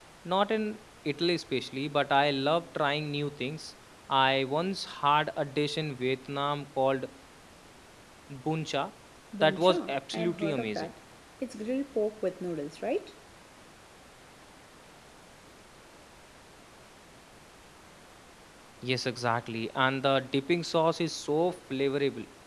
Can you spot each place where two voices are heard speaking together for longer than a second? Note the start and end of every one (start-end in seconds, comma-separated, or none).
9.4-10.9